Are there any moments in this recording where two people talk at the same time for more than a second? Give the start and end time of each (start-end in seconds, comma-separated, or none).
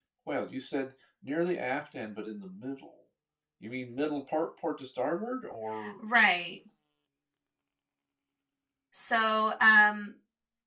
none